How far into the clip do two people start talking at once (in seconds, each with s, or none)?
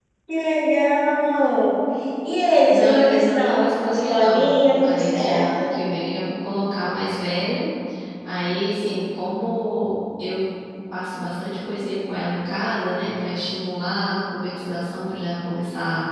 2.7 s